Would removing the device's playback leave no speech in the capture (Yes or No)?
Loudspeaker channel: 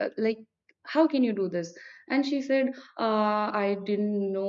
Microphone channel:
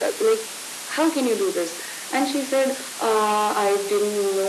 Yes